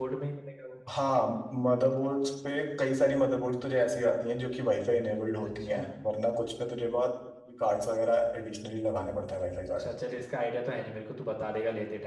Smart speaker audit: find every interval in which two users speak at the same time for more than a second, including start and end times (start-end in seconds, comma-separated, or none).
none